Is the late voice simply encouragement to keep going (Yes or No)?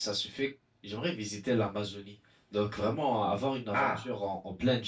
Yes